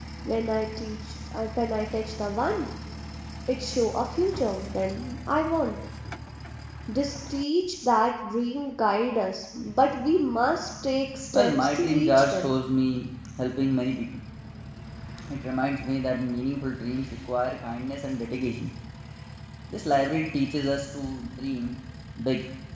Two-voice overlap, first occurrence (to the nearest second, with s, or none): 11 s